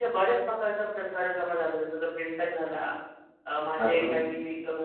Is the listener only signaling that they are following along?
Yes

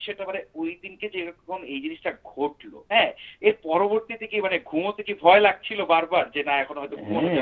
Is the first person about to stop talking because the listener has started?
Yes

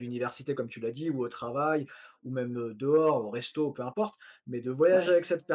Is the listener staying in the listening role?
Yes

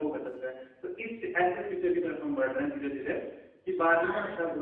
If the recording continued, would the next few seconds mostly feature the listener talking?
Yes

